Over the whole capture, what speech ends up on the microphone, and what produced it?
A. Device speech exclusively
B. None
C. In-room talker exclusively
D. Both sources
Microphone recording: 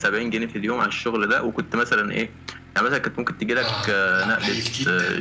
D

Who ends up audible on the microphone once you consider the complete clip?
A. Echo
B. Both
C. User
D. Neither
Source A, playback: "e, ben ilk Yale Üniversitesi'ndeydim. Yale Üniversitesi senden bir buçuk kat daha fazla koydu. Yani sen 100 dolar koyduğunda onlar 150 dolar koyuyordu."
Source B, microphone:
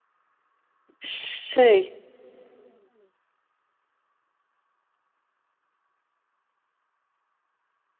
C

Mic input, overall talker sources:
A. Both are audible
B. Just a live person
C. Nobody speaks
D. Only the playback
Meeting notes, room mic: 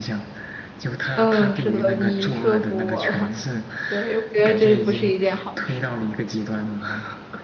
A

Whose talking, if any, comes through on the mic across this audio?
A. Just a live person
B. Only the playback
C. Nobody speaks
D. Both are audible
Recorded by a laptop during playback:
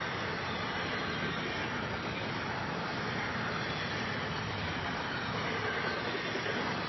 C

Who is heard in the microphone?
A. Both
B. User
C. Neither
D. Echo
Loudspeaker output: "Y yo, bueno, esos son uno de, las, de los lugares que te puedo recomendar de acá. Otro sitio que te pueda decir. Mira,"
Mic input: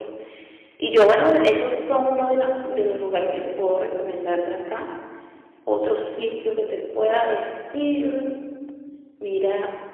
D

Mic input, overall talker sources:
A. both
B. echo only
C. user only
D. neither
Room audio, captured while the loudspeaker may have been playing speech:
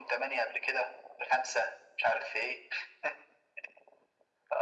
B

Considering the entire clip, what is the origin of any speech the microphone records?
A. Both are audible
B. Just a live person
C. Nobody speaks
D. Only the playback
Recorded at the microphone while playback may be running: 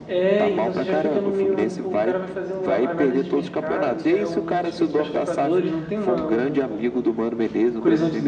A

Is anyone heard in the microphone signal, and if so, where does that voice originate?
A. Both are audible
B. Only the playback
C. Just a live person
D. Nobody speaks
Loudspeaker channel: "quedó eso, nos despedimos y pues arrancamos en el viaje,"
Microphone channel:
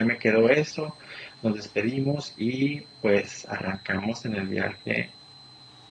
B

